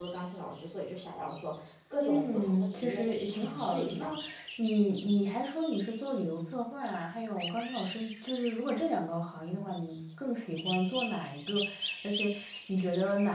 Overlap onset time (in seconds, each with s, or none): 2.0 s